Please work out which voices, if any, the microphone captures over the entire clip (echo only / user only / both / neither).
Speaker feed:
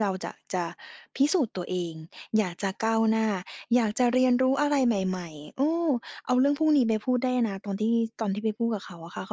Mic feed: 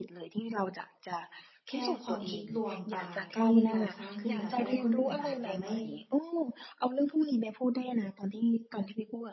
both